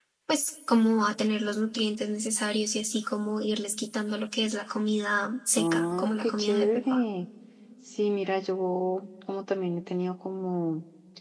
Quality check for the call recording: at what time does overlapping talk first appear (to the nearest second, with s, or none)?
6 s